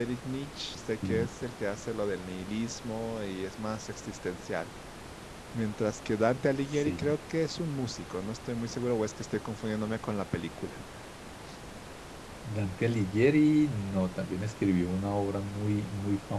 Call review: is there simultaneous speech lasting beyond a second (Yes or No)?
No